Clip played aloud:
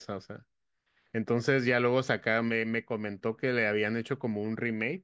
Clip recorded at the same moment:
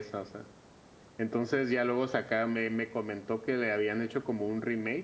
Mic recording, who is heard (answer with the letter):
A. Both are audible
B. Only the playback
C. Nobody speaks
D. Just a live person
B